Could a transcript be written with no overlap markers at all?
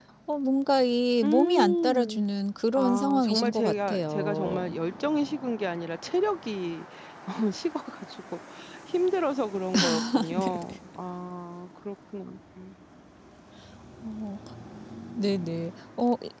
No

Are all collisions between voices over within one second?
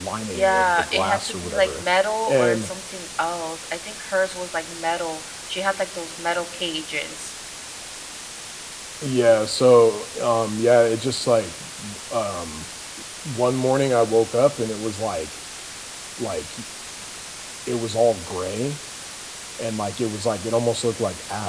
No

